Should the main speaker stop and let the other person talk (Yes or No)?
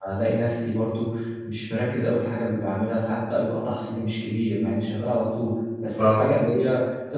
No